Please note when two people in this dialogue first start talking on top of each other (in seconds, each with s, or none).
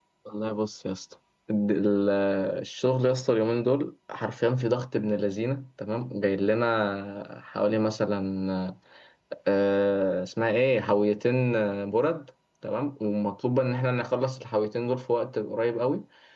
none